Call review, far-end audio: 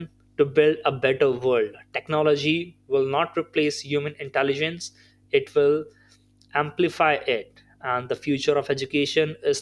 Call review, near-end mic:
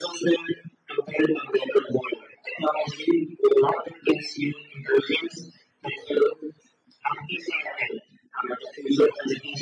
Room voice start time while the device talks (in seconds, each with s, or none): none